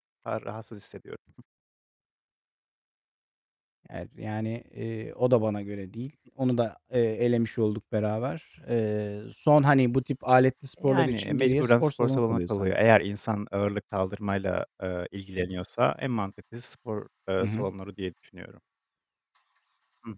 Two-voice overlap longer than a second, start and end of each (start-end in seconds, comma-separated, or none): 10.8-12.7